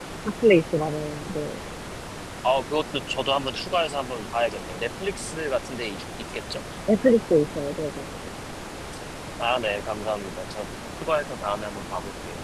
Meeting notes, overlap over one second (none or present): none